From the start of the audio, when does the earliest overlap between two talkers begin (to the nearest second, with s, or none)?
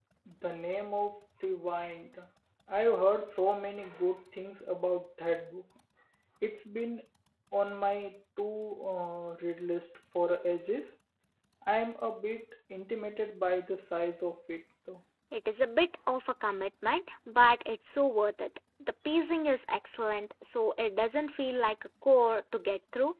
none